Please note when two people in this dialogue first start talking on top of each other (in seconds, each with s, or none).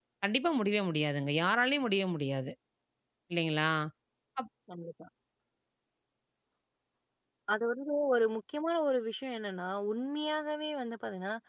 none